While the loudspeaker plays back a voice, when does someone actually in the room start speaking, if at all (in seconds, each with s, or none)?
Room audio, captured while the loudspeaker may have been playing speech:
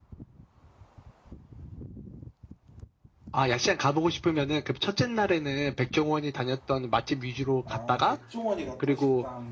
7.6 s